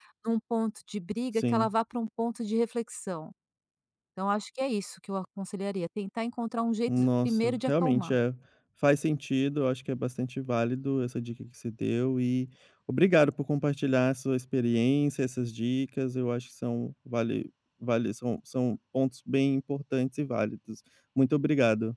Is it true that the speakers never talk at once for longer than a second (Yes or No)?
No